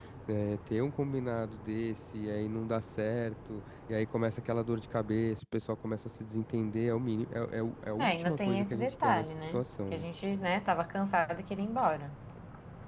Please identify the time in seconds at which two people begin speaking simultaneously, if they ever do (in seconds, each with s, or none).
8.0 s